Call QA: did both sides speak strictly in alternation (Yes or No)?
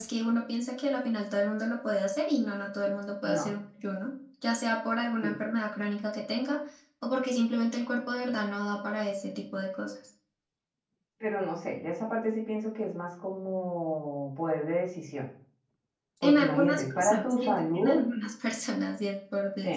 No